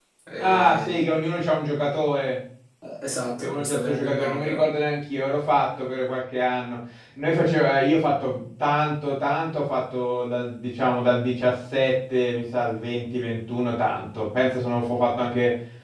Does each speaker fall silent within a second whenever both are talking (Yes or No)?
No